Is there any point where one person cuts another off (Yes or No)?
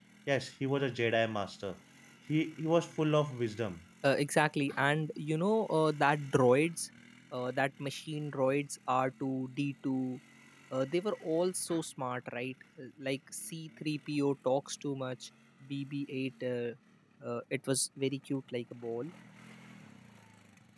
No